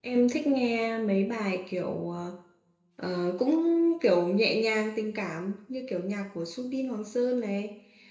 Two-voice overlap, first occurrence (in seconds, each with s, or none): none